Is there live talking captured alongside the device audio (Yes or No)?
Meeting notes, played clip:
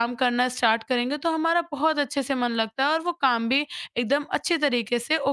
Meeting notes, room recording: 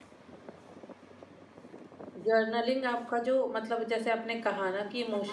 Yes